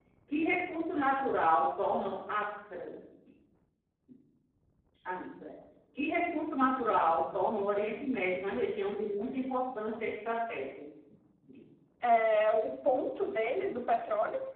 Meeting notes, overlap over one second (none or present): none